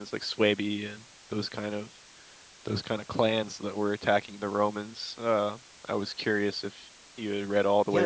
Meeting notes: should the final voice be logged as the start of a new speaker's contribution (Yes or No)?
Yes